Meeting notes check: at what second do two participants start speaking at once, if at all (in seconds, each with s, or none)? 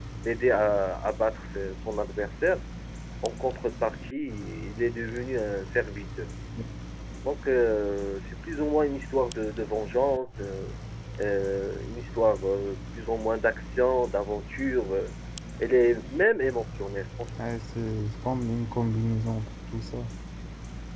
none